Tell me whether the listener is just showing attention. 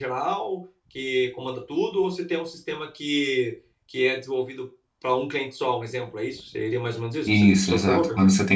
No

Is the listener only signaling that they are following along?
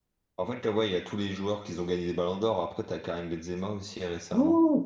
No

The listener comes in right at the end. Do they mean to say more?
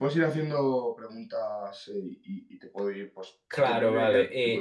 Yes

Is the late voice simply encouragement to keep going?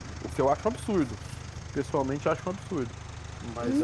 No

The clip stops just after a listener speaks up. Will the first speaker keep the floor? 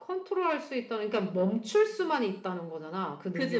No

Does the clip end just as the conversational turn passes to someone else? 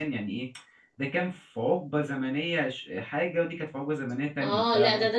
Yes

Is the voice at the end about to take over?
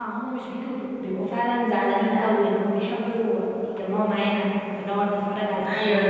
Yes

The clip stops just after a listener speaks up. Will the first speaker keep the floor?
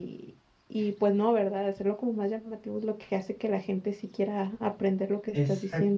No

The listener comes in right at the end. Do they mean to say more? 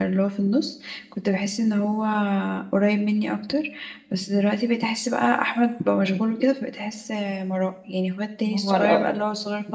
No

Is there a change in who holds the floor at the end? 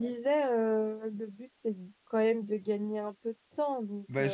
Yes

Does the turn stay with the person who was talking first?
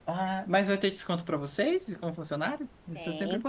No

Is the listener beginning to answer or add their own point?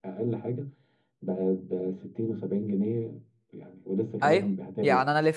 Yes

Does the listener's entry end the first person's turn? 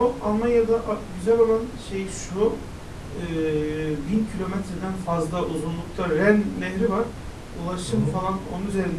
No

